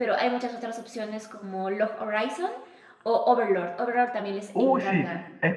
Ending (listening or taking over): taking over